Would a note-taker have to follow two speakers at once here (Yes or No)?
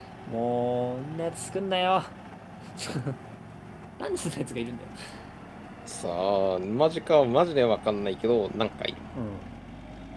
No